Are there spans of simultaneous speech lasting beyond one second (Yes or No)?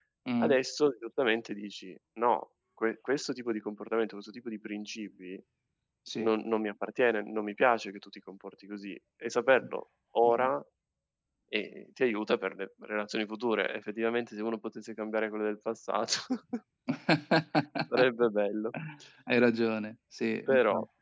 No